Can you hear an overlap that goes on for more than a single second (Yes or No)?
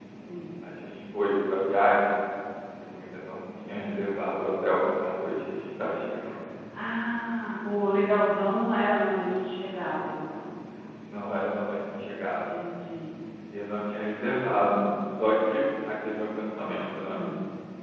No